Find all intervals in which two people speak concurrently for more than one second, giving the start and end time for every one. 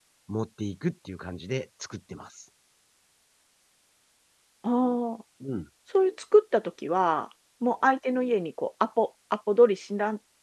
none

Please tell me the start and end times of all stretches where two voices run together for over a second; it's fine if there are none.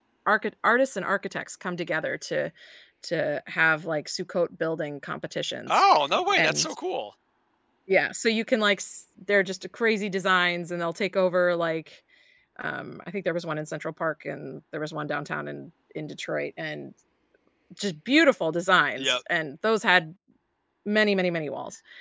none

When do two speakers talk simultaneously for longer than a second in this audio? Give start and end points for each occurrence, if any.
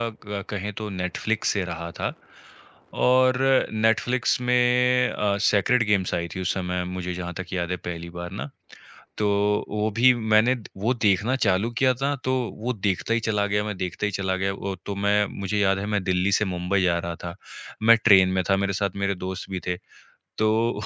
none

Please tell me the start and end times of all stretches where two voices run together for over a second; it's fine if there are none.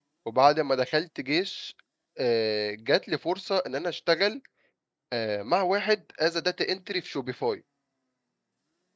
none

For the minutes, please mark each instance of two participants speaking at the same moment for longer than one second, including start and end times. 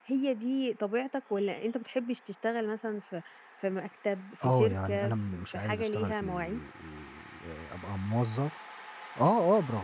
4.4-6.6

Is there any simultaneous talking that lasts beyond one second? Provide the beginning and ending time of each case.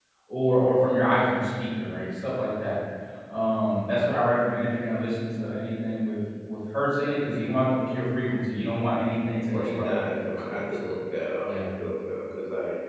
9.5-10.9

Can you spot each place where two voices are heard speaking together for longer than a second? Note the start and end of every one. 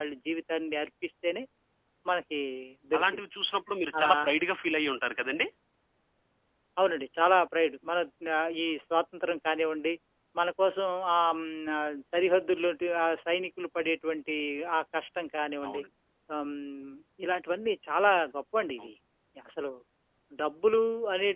none

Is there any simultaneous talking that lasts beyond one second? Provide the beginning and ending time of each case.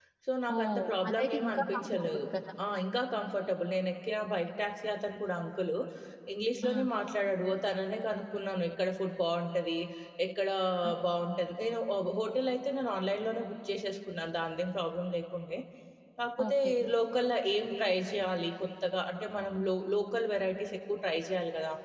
0.6-2.2

